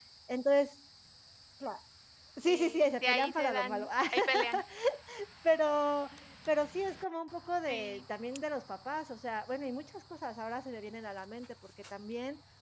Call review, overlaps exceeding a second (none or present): present